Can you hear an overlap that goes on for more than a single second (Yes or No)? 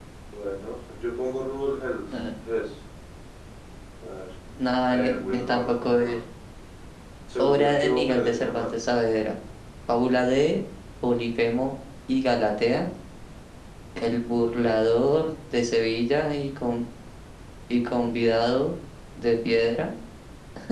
Yes